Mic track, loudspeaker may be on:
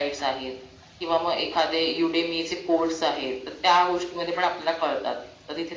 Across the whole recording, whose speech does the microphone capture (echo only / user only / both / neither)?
echo only